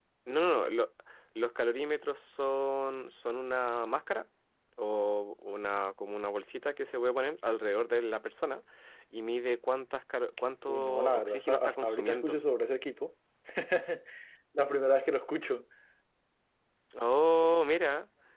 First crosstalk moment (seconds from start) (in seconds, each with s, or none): 10.7 s